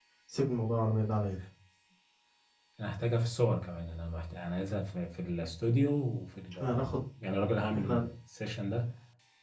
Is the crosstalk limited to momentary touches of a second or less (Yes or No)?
Yes